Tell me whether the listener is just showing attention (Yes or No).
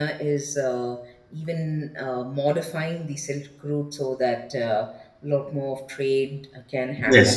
Yes